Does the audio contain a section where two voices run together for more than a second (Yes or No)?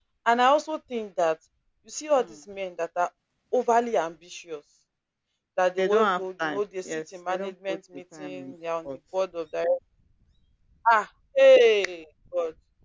Yes